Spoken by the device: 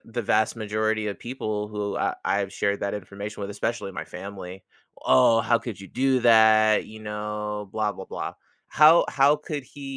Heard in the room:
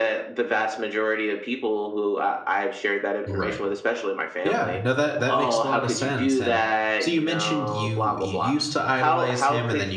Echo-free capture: No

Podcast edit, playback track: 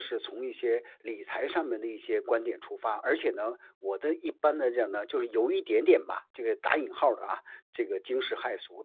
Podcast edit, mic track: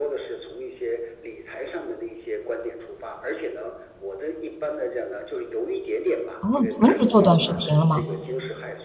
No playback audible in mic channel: No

